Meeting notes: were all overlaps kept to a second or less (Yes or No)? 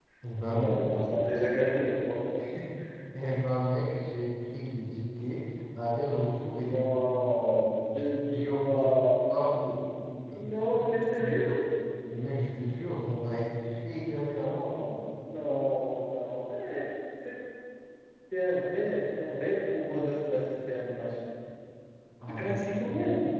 No